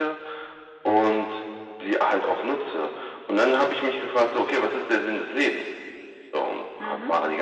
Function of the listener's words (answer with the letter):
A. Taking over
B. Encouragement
B